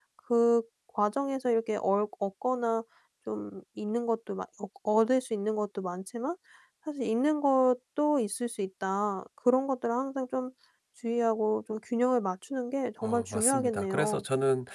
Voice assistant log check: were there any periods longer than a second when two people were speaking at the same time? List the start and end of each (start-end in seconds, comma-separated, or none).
13.0-14.2